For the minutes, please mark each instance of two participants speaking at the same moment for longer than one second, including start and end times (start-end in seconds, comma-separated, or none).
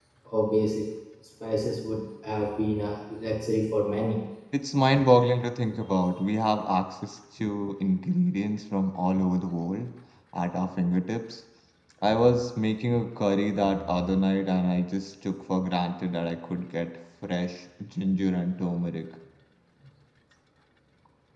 none